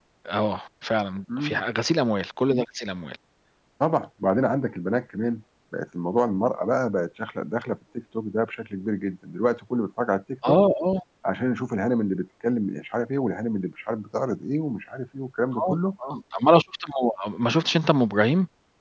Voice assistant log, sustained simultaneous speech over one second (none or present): none